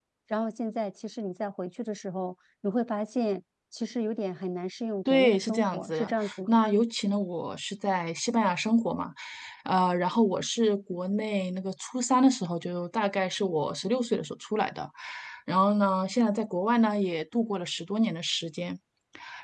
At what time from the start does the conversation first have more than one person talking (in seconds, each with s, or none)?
5.0 s